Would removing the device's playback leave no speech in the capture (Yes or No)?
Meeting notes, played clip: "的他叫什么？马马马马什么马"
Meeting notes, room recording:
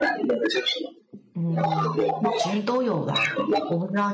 No